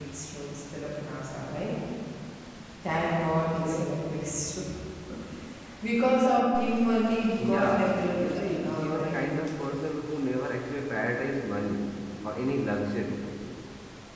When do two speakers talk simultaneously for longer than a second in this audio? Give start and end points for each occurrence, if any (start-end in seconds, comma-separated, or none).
7.4-9.2